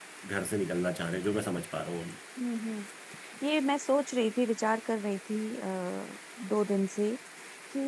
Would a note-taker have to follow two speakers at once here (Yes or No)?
No